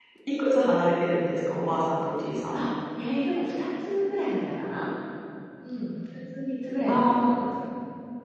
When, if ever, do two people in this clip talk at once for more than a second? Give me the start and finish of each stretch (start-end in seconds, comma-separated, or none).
none